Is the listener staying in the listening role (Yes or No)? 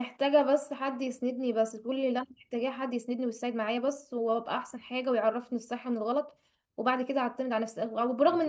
Yes